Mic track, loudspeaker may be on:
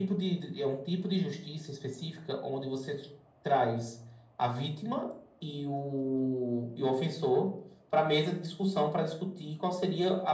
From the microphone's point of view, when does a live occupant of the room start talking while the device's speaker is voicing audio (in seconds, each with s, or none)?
none